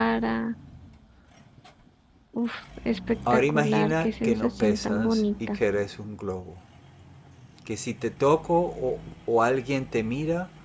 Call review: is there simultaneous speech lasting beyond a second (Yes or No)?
Yes